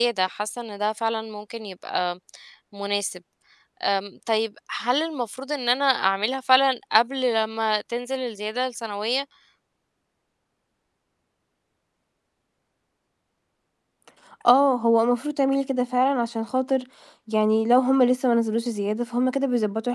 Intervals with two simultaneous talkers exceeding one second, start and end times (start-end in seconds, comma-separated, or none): none